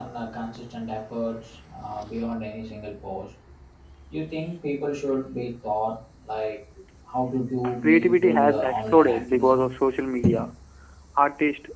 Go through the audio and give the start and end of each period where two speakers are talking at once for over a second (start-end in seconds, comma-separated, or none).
7.8-9.7